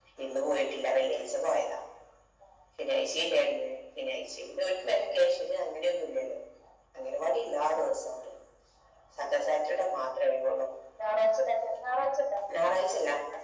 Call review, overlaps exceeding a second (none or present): none